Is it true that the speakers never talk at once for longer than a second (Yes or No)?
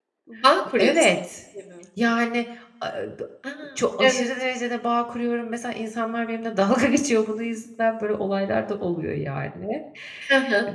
Yes